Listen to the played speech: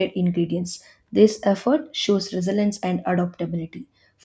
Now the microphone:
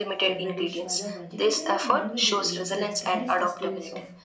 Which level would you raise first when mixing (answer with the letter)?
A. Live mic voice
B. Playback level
A